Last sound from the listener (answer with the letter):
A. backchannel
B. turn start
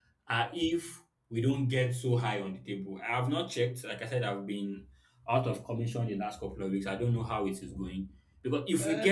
B